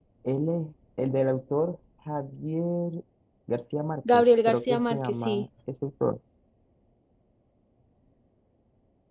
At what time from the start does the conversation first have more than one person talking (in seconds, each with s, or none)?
4.1 s